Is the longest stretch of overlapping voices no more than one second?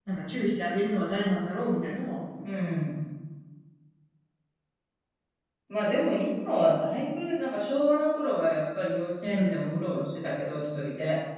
Yes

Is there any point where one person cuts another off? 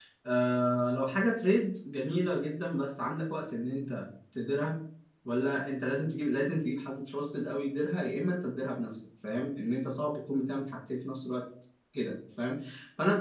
No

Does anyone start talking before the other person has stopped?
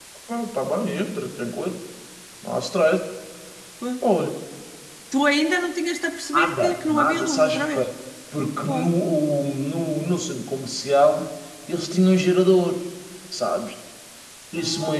Yes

